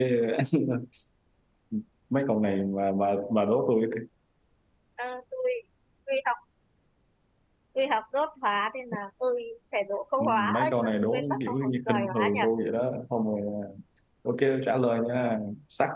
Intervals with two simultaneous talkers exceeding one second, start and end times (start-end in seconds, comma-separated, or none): 10.2-12.4